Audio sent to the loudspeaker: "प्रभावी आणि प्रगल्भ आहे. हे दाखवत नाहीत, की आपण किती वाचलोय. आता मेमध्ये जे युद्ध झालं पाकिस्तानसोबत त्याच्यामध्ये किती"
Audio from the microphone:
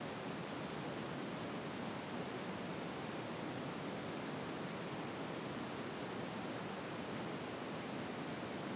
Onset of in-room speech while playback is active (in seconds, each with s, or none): none